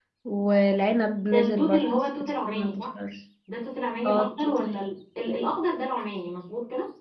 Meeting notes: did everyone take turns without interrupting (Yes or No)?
No